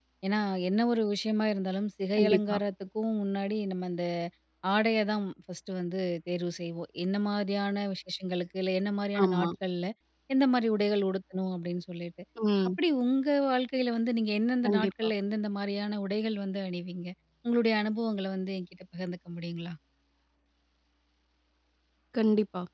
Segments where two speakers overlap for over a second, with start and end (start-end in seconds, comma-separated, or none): none